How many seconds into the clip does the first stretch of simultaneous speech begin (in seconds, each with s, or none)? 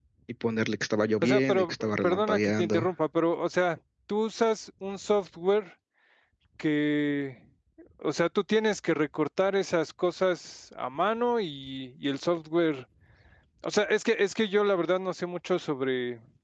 1.2 s